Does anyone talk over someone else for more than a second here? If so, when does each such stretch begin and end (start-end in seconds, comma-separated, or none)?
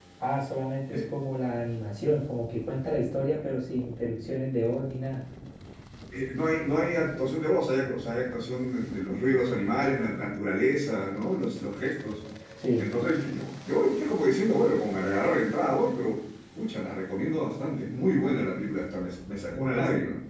none